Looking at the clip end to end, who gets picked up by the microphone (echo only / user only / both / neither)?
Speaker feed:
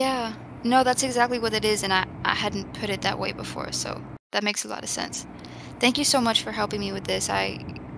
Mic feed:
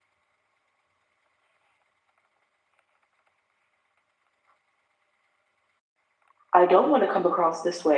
user only